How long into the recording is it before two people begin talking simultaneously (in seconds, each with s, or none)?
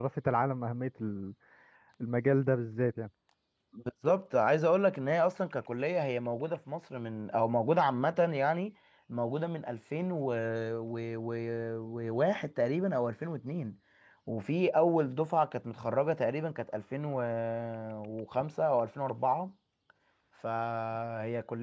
none